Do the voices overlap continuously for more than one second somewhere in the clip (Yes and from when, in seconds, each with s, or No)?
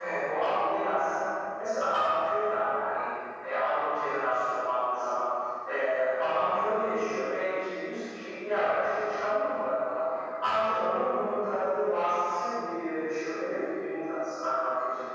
No